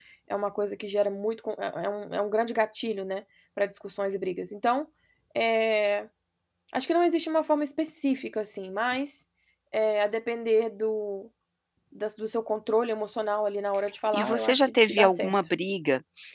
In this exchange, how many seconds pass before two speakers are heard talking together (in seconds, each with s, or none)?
14.1 s